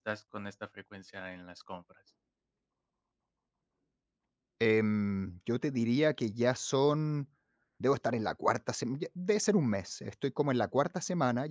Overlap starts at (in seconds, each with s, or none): none